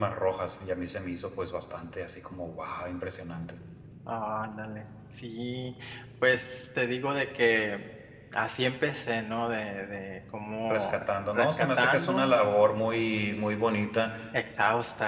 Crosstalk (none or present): present